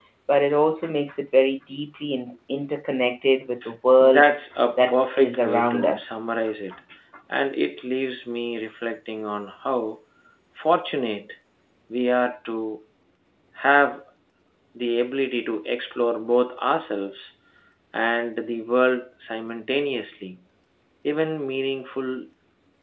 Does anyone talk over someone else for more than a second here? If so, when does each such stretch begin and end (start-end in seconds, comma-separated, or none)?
4.8-6.2